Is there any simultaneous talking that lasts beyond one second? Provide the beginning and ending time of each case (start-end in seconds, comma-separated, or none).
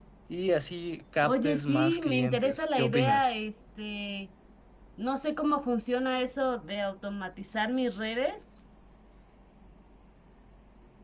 1.2-3.3